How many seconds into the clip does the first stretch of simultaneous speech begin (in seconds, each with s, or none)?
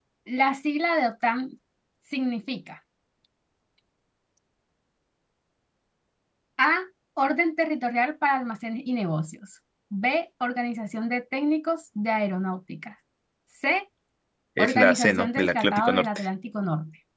14.6 s